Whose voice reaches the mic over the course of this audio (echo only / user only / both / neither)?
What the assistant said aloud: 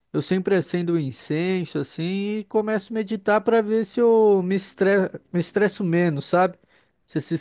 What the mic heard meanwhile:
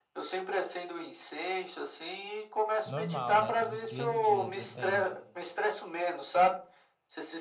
both